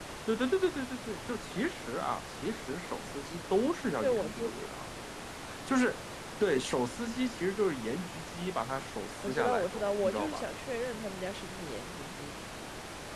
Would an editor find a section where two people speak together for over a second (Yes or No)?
Yes